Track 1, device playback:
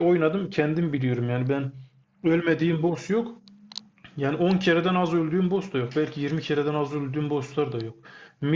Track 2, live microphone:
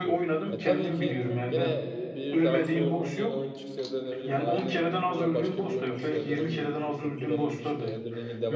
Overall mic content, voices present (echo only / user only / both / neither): both